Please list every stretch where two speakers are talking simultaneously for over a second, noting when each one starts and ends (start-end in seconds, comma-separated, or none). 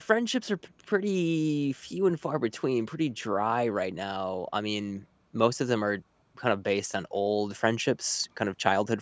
none